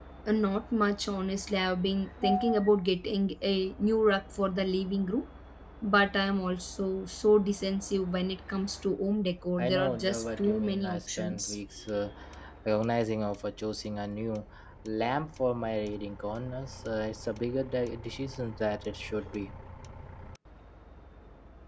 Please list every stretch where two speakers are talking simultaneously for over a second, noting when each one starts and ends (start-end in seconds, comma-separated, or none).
9.6-11.6